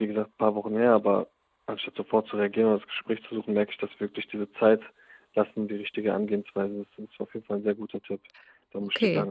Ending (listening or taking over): taking over